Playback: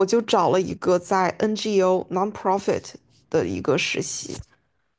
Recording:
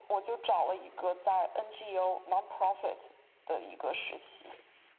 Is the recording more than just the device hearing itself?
No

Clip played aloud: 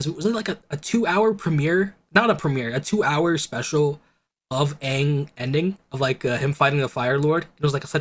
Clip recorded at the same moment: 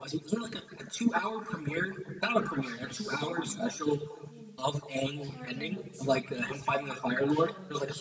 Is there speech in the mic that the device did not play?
Yes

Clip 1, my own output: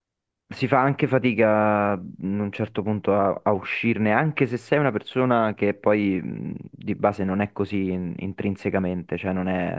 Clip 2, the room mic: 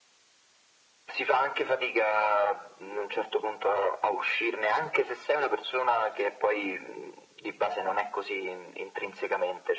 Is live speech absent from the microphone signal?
Yes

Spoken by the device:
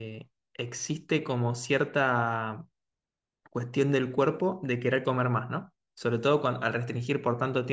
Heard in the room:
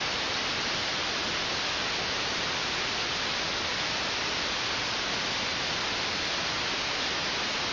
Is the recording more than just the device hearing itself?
No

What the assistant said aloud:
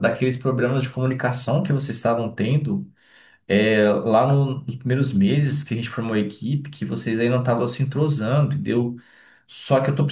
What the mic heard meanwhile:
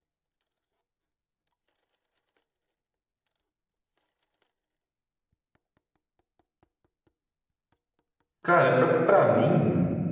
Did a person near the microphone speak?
Yes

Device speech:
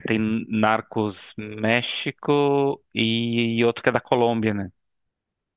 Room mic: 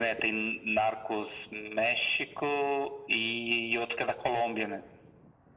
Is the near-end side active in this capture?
No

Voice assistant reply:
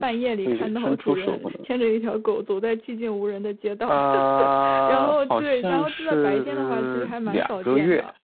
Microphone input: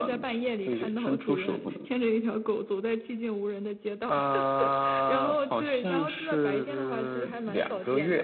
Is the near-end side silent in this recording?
Yes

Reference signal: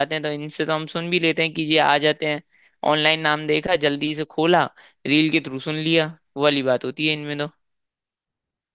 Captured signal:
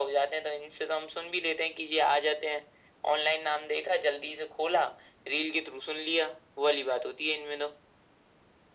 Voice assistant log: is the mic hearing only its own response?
Yes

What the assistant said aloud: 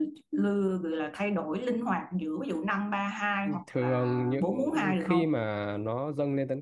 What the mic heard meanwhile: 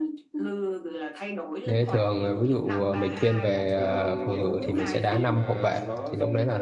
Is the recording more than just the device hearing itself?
Yes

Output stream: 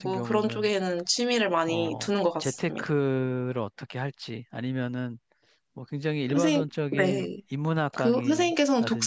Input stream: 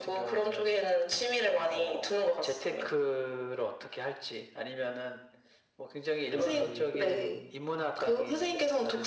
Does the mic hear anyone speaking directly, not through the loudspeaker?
Yes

